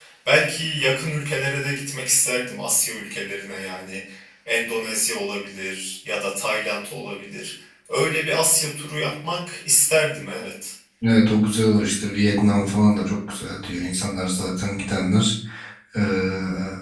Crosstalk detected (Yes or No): No